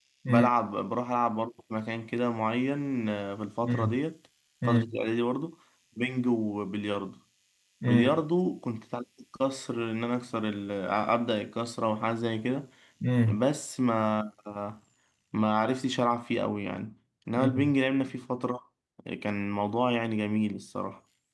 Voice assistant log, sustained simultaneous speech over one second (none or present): none